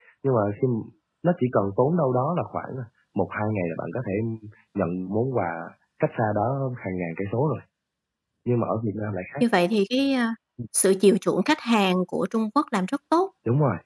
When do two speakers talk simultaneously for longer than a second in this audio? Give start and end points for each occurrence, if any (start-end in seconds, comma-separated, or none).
none